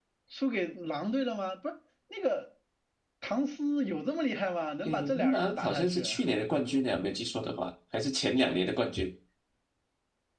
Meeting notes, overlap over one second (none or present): present